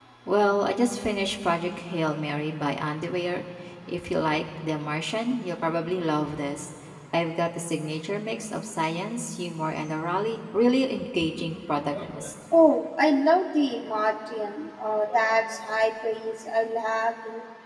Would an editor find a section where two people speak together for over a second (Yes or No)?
No